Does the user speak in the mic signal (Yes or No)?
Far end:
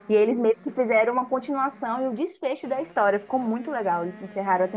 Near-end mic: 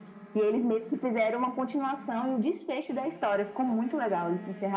No